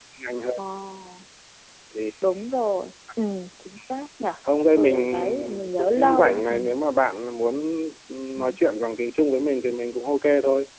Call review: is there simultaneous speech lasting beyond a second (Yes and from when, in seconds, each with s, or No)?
Yes, from 4.8 s